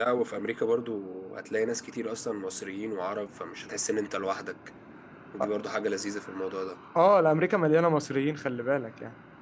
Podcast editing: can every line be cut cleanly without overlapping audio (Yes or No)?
Yes